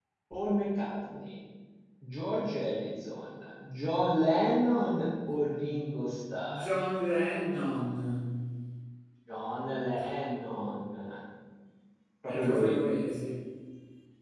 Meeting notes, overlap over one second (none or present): none